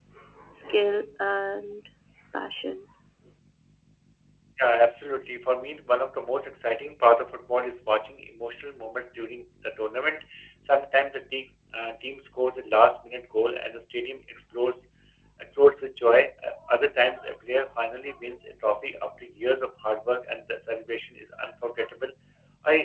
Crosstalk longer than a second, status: none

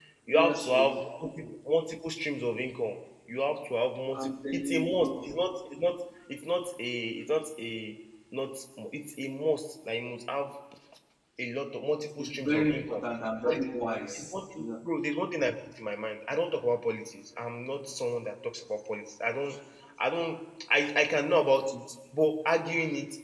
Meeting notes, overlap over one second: present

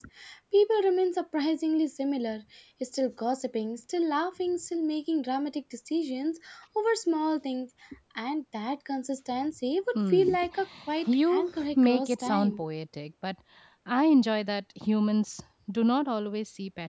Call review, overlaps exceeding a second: present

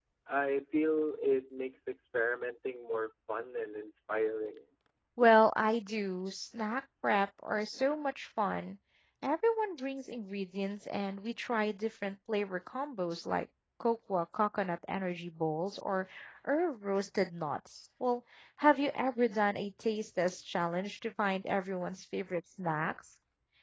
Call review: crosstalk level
none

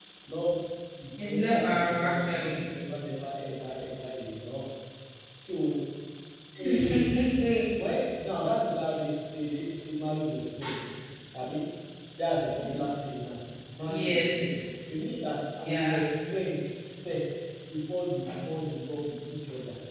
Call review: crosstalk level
present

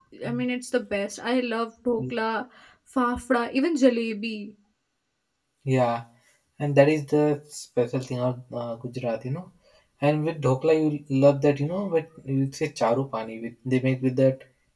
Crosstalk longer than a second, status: none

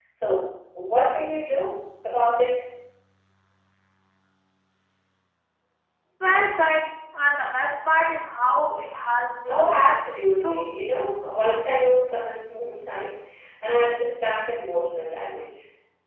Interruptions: present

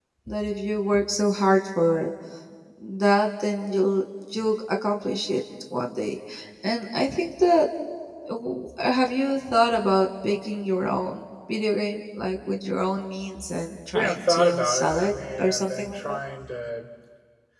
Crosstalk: present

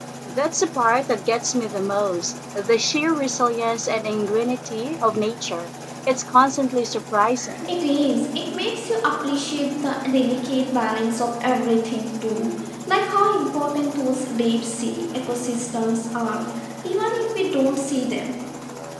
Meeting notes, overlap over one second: none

